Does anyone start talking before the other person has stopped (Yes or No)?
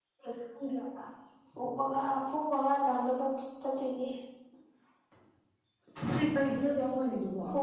No